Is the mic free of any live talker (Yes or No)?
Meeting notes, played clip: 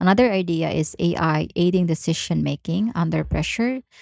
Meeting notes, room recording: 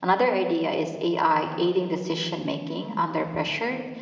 Yes